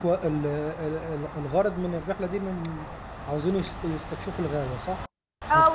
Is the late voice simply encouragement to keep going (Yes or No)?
No